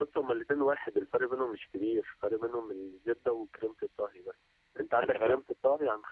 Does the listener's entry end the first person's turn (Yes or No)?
No